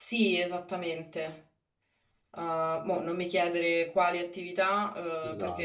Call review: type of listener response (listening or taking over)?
listening